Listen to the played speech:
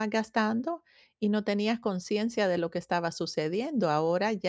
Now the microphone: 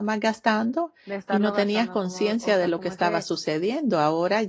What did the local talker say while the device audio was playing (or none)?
de estarlo gastando, como, o sea, como ese